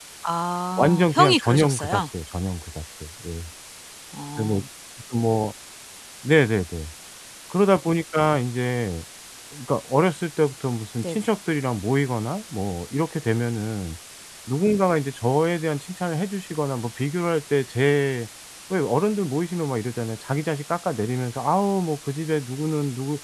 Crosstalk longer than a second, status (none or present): present